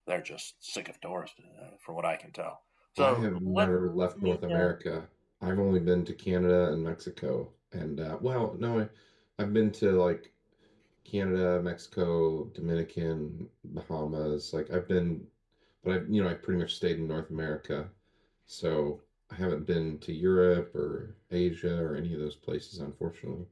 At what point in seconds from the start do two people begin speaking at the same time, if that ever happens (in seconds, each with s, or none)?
3.0 s